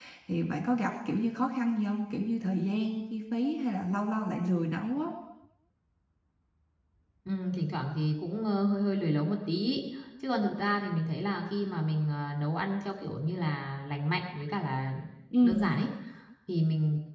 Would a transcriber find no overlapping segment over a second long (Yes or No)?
Yes